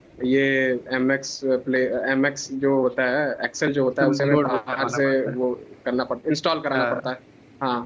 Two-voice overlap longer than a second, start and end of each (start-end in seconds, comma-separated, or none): 4.0-5.3